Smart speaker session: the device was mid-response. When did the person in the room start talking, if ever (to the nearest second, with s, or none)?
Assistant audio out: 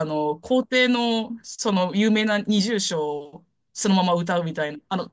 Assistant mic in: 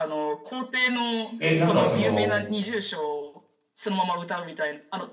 1 s